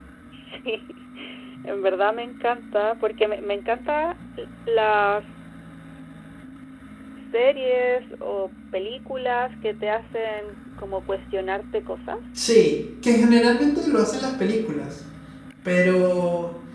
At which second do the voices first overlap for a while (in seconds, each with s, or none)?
none